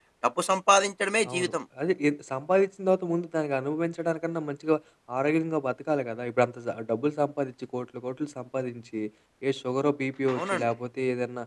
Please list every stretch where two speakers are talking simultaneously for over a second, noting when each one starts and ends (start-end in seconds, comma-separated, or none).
none